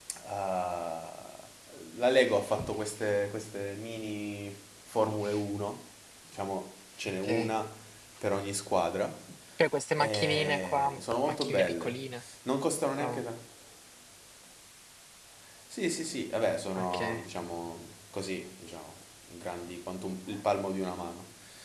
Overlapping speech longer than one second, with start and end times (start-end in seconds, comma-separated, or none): 10.0-12.1